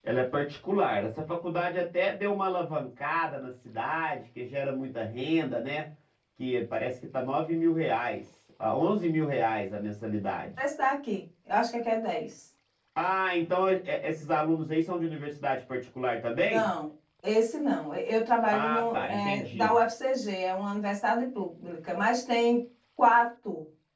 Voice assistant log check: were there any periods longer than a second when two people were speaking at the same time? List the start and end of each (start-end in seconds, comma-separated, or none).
18.5-19.8